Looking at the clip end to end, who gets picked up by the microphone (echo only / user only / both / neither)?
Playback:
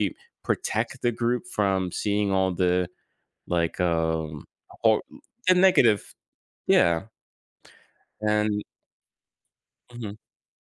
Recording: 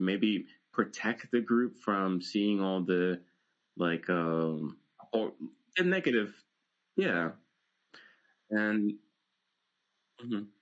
echo only